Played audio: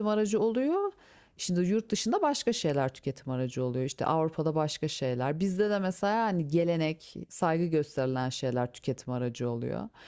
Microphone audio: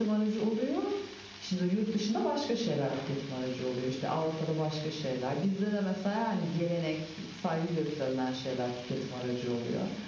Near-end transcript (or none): none